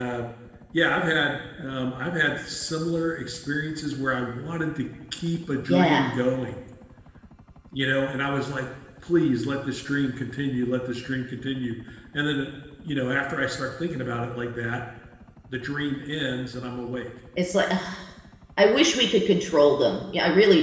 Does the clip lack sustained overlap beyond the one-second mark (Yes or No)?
Yes